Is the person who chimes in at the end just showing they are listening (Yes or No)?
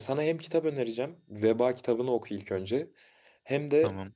Yes